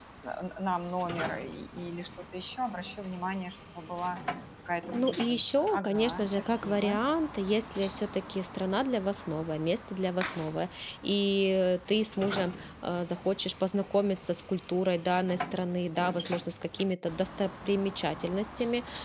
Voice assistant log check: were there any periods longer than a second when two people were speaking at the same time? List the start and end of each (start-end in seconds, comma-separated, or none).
4.9-7.0